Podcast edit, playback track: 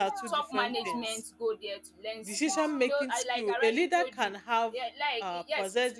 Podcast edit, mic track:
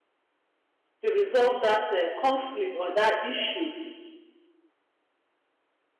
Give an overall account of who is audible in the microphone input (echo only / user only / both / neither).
user only